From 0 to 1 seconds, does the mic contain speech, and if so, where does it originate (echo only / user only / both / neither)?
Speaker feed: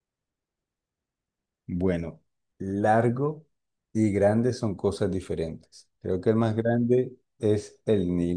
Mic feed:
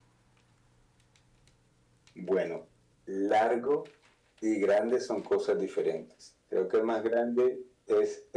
neither